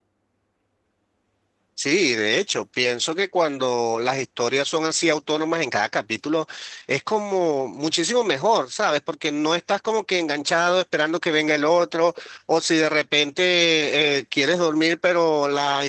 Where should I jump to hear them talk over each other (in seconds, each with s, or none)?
none